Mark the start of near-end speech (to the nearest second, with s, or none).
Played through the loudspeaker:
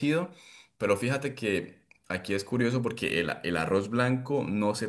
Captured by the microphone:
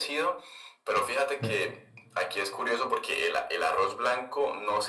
1 s